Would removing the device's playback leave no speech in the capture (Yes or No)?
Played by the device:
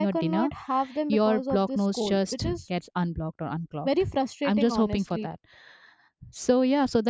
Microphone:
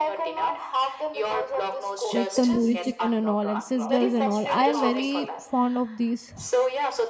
No